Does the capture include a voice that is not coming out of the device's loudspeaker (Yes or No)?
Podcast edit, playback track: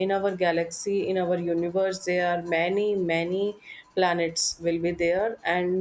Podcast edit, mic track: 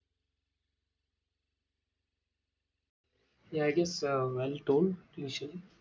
Yes